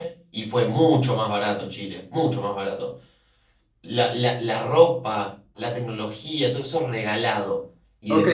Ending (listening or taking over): taking over